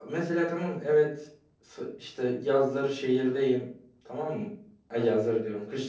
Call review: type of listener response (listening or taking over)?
listening